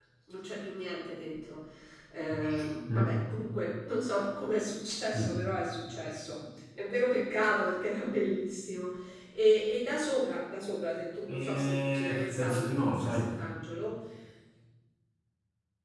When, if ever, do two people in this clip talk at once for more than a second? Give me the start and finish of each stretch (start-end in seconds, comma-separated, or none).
11.3-13.2